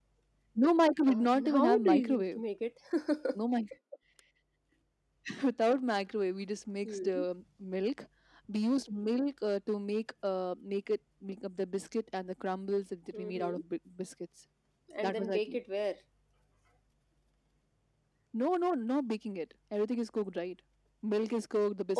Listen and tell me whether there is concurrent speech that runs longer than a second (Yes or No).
Yes